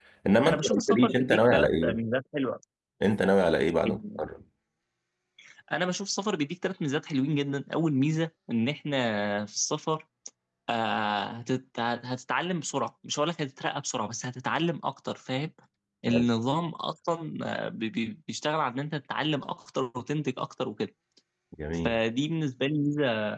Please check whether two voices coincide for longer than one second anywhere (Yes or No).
Yes